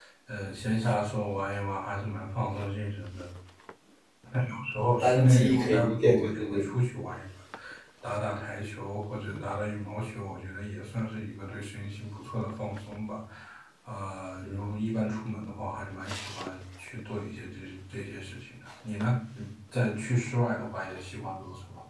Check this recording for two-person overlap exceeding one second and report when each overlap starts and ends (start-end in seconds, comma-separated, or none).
5.0-6.7